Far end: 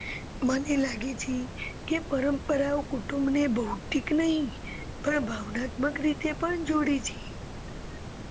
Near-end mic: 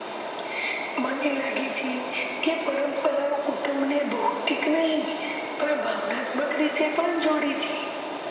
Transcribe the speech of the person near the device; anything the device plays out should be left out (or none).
none